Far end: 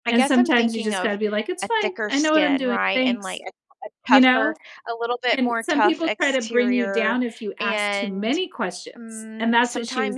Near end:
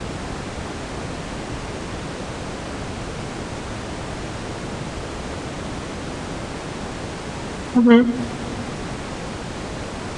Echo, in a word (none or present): none